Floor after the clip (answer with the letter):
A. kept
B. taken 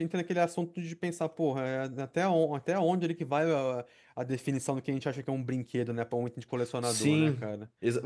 B